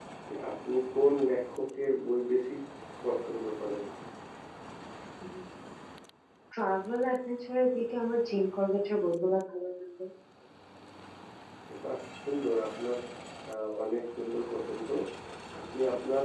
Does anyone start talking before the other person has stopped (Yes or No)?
No